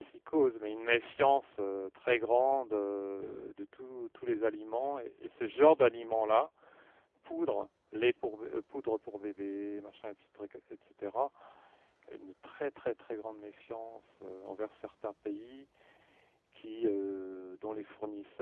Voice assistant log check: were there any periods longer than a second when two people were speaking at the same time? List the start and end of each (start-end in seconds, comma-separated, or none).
none